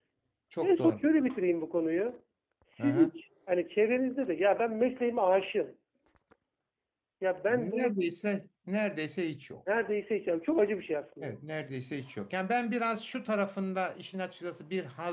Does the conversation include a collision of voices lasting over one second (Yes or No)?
No